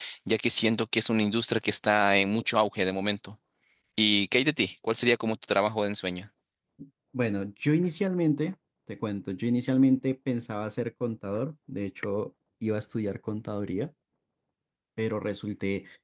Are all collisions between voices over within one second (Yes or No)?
Yes